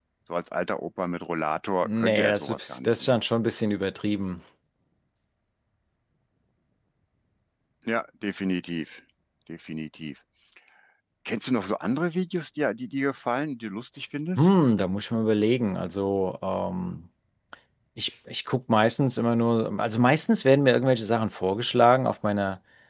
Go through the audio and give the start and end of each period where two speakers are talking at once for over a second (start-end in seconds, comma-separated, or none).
1.8-3.1